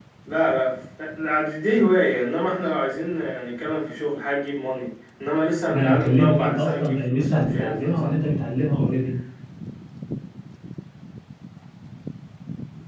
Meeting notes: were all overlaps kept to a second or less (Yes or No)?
No